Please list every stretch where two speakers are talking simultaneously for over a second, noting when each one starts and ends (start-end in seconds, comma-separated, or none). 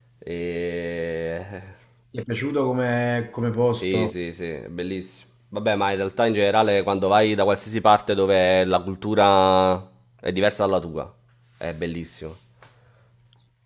none